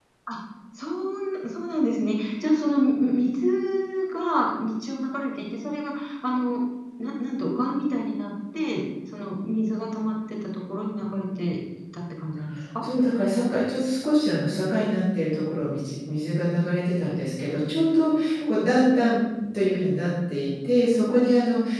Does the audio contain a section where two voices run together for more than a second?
No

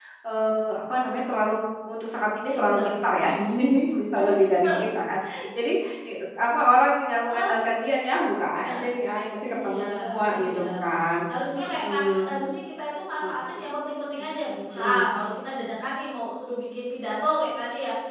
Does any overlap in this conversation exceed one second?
Yes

